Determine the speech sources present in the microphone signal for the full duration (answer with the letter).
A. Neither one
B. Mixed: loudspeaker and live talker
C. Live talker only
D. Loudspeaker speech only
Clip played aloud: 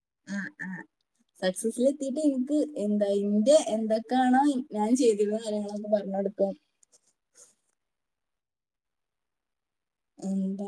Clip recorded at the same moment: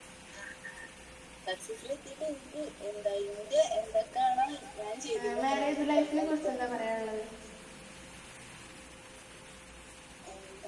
B